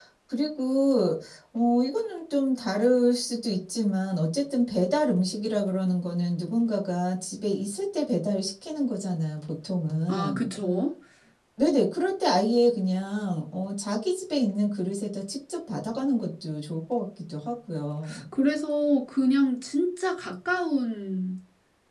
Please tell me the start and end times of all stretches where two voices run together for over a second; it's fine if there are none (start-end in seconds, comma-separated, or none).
none